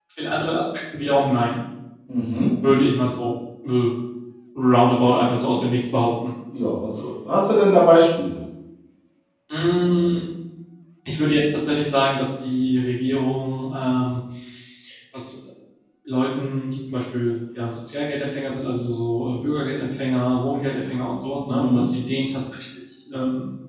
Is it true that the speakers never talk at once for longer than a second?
Yes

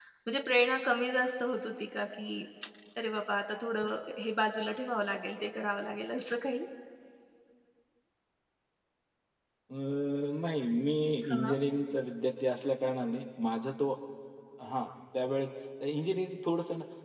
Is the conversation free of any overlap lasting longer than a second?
Yes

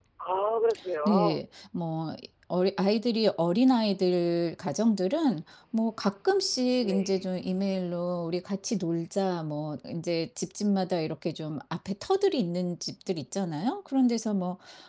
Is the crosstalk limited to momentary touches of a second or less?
Yes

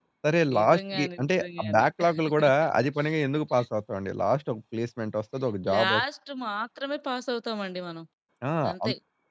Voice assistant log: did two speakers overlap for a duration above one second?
Yes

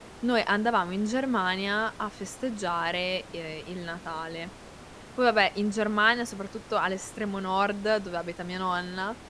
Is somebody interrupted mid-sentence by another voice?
No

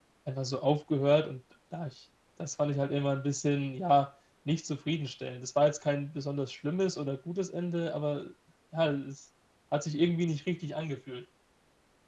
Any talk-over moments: No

